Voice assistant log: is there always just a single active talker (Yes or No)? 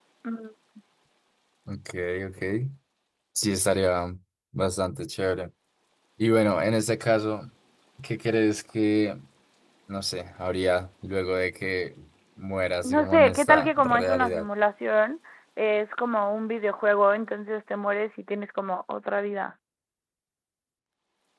No